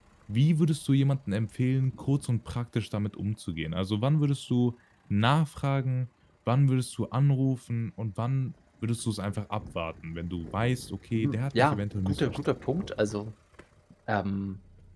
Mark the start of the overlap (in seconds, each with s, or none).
11.1 s